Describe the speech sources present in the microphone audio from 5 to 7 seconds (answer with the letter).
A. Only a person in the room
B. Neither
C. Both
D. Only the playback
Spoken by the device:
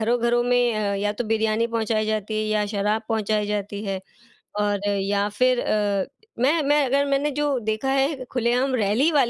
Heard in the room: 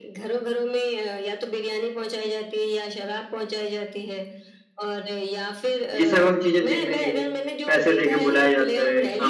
C